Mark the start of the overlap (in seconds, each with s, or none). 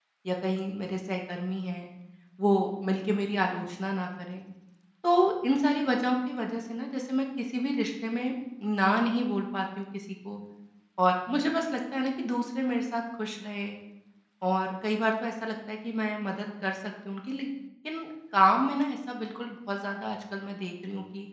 none